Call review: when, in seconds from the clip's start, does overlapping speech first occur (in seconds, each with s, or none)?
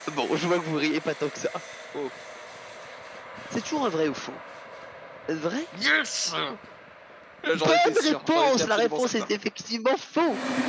7.5 s